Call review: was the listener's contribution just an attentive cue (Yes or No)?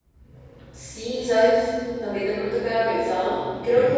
Yes